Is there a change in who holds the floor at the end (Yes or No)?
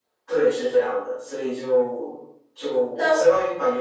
No